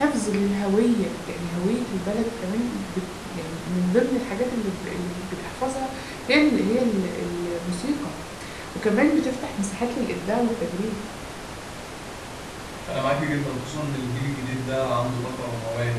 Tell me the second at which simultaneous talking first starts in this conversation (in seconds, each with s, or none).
none